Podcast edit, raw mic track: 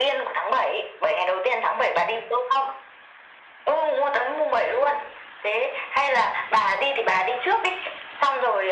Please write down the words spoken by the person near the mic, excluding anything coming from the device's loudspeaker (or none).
none